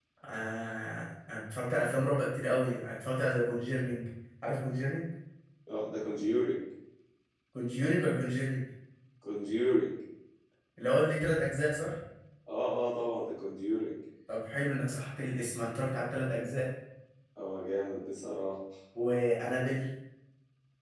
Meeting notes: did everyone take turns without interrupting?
Yes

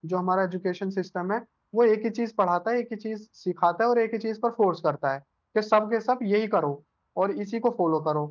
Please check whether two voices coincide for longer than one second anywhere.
No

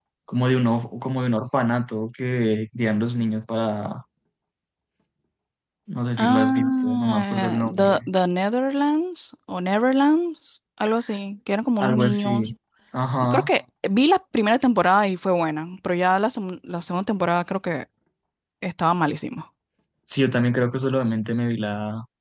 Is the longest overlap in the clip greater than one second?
Yes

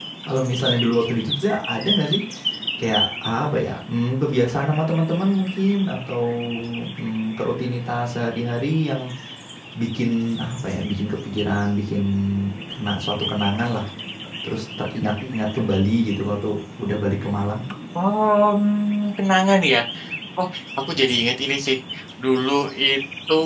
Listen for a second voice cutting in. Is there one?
No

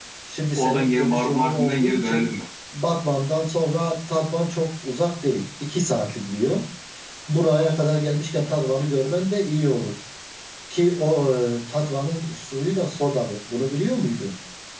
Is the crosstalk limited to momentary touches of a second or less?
No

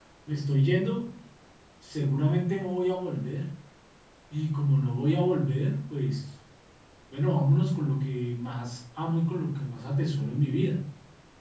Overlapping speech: No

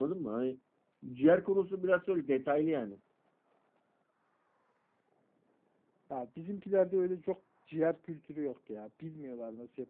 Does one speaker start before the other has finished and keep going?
No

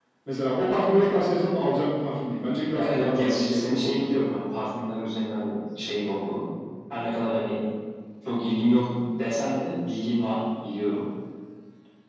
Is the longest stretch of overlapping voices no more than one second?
No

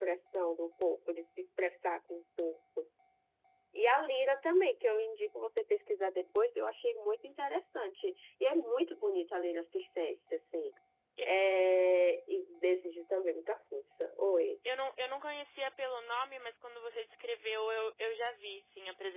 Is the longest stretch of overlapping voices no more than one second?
Yes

